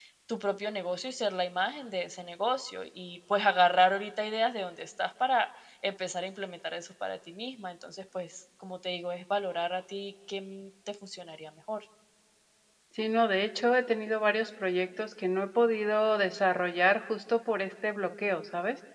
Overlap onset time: none

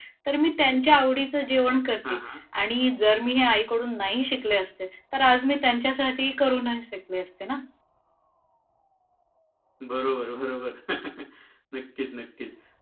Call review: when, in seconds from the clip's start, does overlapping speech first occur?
none

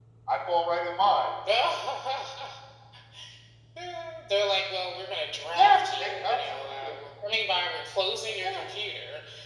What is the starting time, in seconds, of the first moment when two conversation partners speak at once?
5.5 s

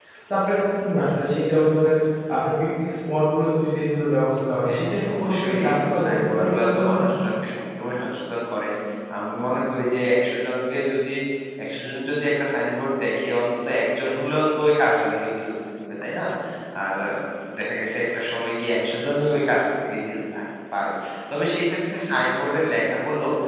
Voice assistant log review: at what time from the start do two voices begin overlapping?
4.6 s

